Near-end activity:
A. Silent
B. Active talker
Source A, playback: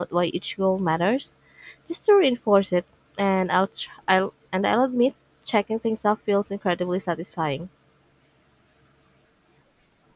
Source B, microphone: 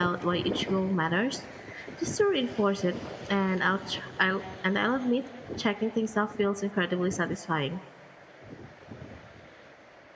A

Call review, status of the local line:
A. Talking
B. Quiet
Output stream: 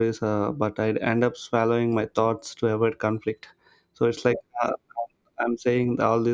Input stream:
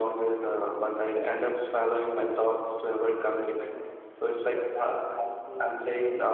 A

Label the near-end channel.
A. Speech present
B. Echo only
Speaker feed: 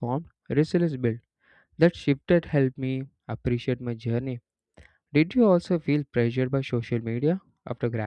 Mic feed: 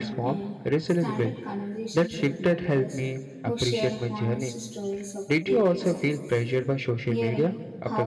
A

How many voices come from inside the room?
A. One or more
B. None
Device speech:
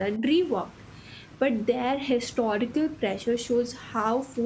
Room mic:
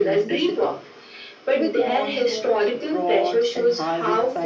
A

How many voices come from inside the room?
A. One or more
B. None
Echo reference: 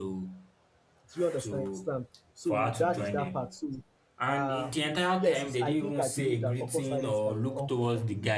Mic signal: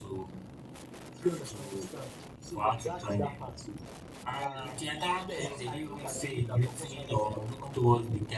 B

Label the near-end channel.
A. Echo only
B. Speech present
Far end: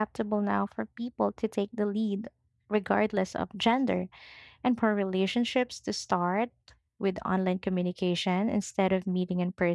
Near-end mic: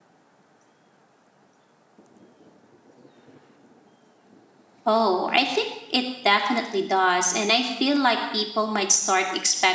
B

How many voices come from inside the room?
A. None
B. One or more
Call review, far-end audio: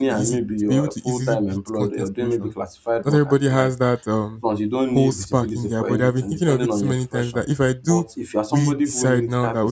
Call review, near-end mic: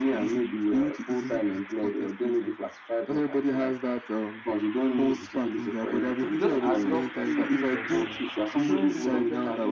B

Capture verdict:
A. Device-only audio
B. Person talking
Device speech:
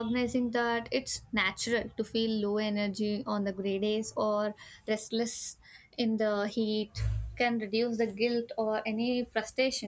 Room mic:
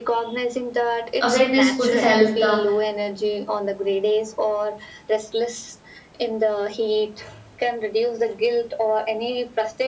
B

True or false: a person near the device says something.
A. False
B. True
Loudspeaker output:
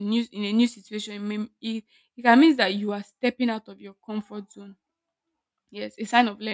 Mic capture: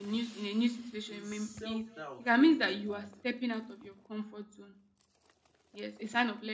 B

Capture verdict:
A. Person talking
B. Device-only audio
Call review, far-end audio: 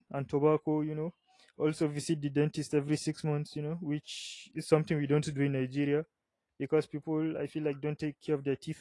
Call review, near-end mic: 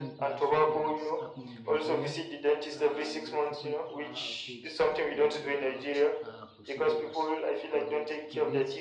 A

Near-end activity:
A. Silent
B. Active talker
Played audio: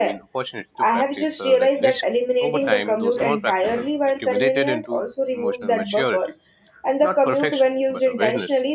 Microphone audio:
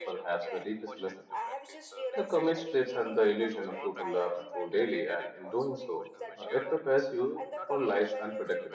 B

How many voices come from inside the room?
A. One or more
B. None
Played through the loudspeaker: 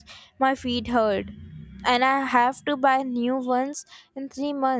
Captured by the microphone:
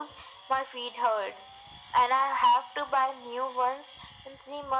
B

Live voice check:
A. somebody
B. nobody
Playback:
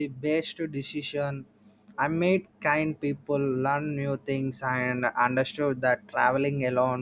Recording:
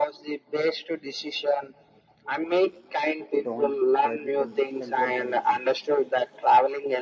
A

